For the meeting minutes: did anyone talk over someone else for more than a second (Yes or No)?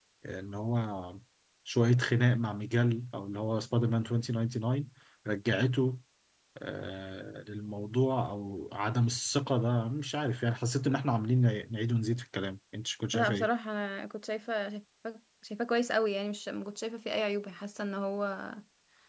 No